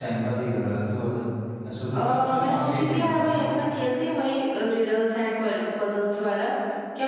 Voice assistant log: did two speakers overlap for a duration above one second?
Yes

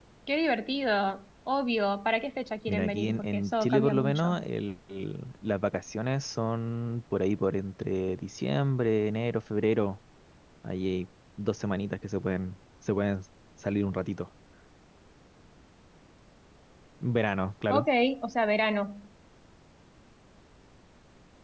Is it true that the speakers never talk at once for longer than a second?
No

